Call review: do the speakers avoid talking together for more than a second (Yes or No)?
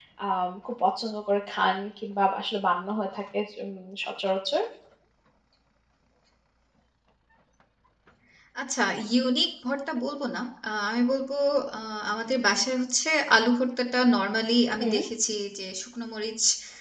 Yes